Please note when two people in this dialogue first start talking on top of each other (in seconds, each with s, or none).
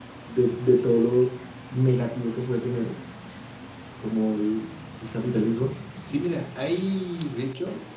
none